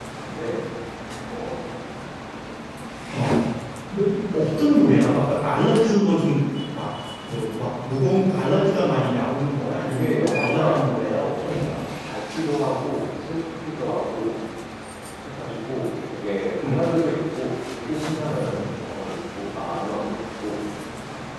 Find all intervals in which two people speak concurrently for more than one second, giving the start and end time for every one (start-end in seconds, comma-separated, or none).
9.6-11.8